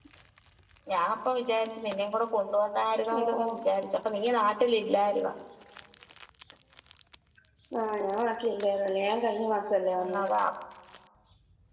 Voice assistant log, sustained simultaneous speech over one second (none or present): none